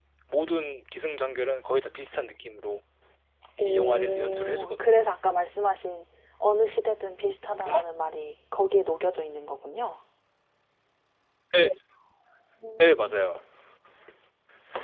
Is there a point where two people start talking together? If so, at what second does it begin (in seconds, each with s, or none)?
3.6 s